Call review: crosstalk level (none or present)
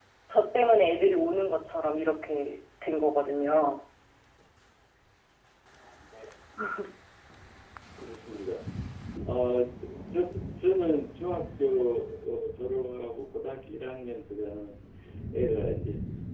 none